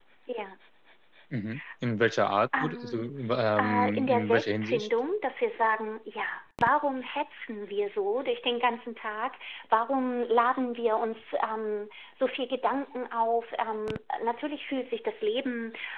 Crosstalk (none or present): present